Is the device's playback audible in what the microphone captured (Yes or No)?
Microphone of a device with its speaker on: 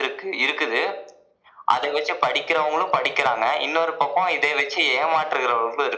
Yes